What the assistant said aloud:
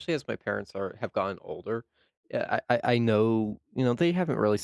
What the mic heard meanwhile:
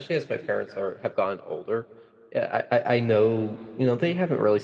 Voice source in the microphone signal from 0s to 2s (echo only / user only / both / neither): echo only